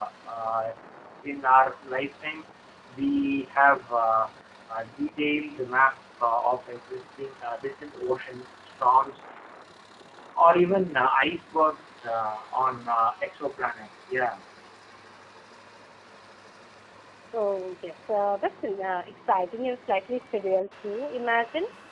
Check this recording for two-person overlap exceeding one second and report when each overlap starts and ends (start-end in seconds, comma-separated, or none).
none